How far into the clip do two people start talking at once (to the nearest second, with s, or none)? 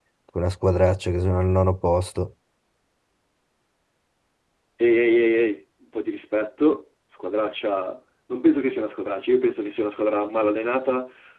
none